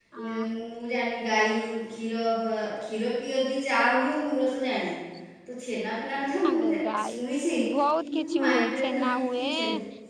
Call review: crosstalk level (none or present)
present